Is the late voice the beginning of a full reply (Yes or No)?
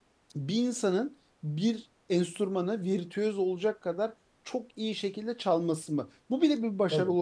No